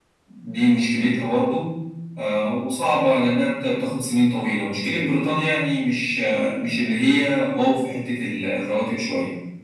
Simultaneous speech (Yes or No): No